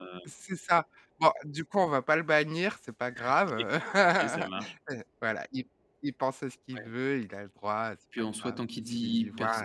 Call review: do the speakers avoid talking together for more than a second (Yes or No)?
No